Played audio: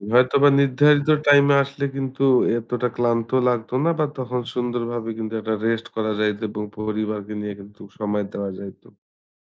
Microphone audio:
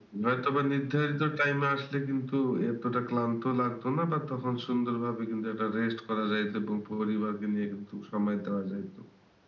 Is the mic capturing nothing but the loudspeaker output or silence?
Yes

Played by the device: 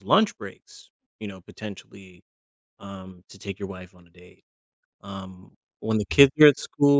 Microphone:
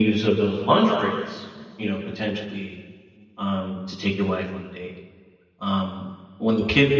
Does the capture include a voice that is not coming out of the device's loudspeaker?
No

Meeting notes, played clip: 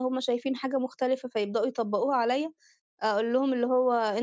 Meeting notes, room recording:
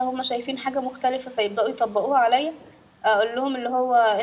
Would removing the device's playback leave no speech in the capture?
Yes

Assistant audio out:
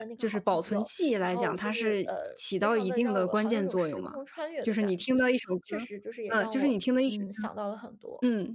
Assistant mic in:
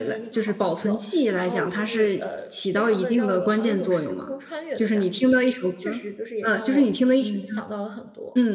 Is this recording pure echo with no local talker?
Yes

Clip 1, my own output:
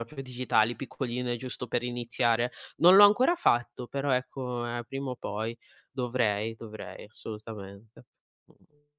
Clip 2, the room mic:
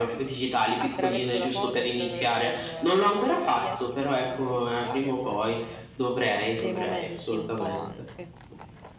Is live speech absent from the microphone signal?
No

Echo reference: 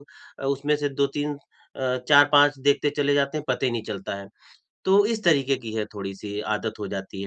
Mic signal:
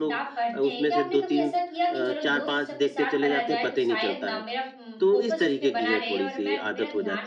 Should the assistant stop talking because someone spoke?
Yes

